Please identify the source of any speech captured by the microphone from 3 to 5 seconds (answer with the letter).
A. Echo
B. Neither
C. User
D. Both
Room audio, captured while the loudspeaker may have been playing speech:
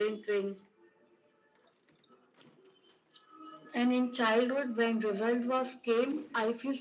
A